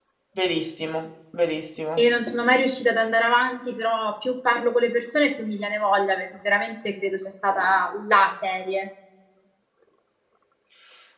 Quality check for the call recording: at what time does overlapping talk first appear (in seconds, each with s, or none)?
none